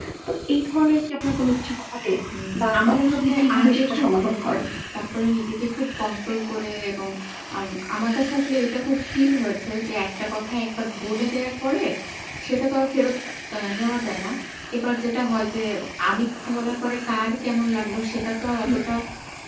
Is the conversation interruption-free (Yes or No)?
No